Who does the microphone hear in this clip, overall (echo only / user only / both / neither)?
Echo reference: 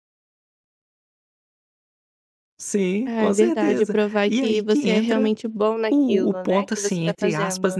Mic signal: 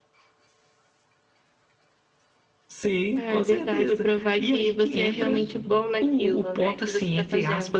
both